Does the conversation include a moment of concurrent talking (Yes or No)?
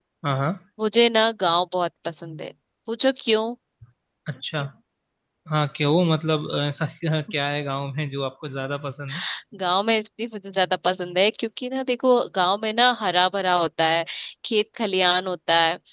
No